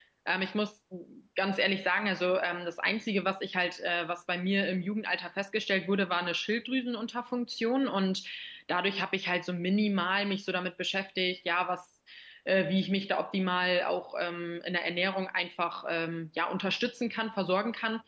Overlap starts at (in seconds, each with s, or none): none